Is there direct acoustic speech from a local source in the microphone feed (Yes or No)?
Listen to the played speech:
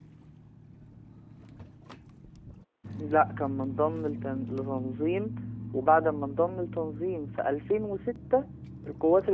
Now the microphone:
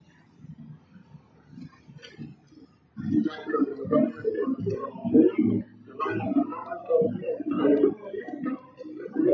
No